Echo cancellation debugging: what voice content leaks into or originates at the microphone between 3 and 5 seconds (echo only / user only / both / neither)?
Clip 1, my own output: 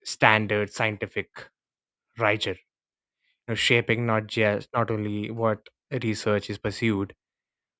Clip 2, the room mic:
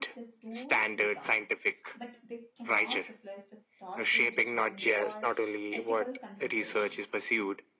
both